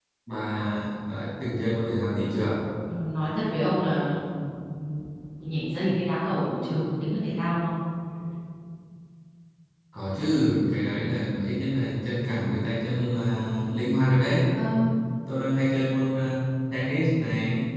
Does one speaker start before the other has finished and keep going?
No

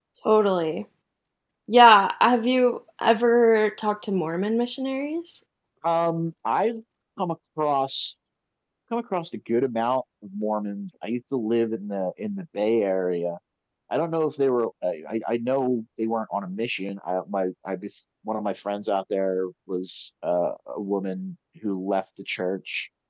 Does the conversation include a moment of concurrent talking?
No

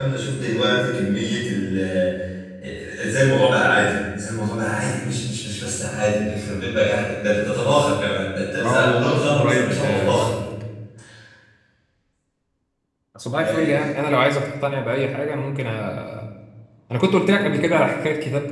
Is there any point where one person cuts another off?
Yes, from 8.6 s

